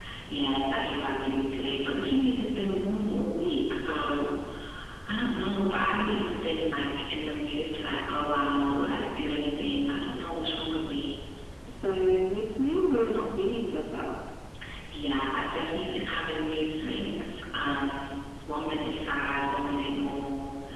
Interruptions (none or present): none